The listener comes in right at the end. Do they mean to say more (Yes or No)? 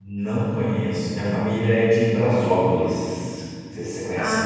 Yes